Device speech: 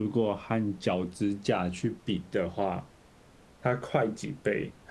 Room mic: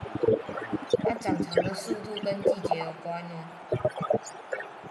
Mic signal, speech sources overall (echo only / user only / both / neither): both